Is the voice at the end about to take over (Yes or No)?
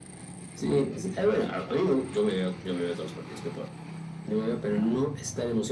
No